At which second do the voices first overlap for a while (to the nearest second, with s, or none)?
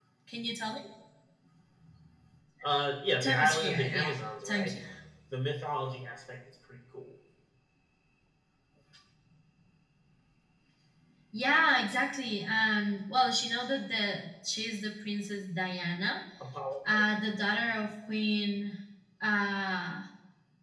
3 s